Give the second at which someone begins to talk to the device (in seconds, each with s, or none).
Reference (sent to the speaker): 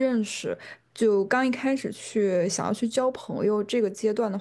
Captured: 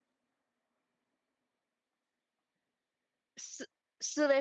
3.4 s